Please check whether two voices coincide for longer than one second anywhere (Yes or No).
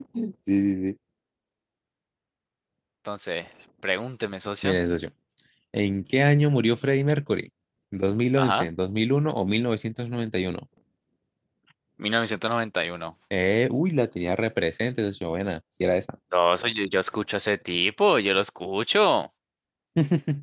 No